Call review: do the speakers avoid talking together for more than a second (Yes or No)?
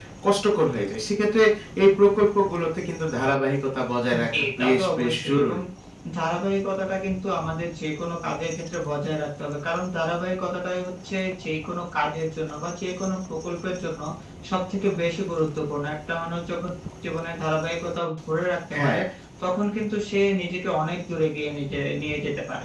No